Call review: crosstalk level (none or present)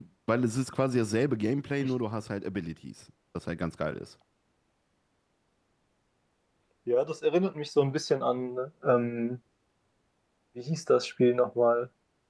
none